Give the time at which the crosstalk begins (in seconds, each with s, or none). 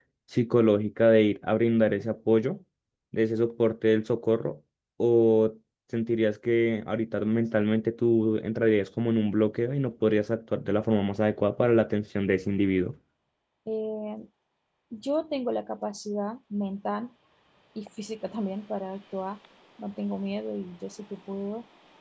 none